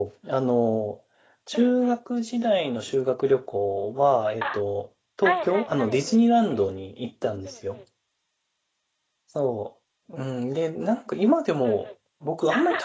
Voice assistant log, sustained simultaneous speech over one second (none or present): present